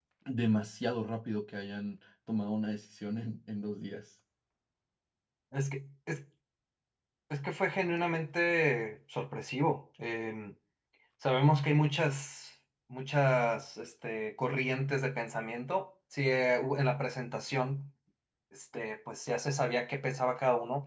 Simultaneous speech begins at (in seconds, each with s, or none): none